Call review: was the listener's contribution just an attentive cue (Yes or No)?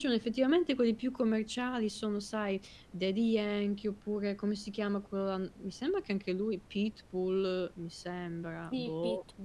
No